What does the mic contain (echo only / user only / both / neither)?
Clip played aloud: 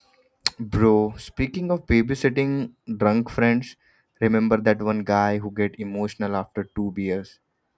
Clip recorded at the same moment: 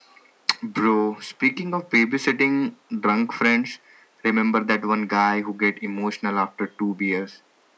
echo only